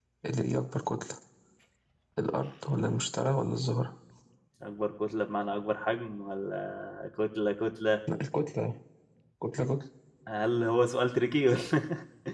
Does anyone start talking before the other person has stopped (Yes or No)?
No